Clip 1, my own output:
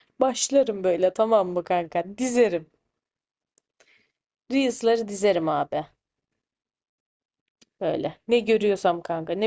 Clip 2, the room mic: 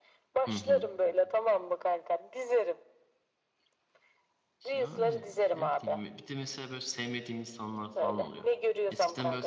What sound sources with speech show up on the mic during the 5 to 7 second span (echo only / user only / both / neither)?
both